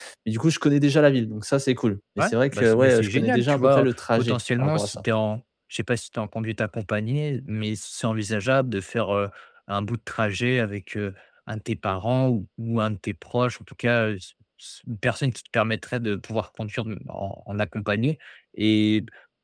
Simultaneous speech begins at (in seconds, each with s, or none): 2.2 s